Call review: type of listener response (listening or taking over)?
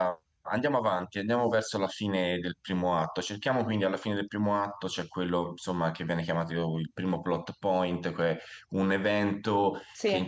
listening